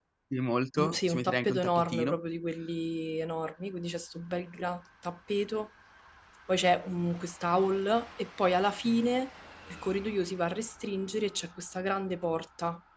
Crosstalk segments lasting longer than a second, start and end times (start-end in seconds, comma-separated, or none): 0.8-2.2